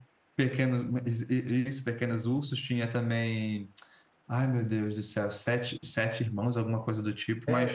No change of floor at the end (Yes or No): No